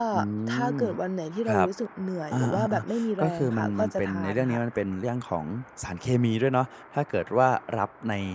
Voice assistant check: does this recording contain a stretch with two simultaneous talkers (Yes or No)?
Yes